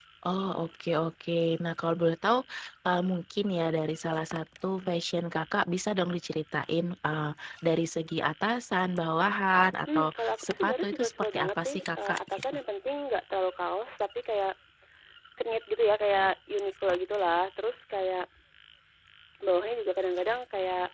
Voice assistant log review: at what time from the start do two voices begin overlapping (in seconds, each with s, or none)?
9.9 s